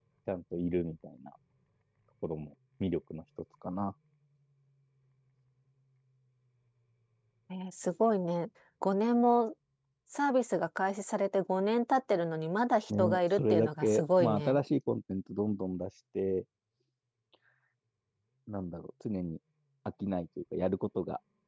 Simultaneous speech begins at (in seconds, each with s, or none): 12.9 s